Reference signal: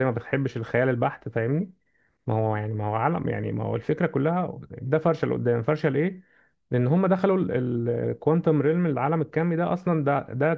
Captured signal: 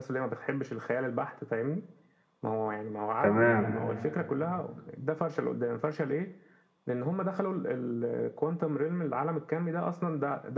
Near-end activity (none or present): present